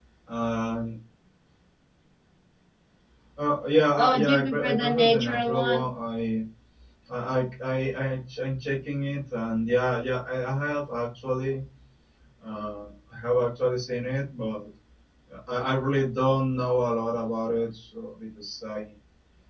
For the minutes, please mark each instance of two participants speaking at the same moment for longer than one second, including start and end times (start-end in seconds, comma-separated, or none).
4.0-5.9